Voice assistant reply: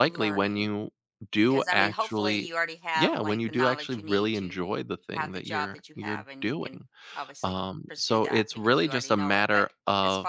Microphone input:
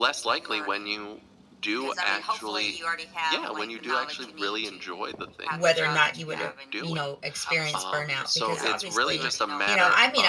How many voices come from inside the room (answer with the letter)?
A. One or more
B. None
A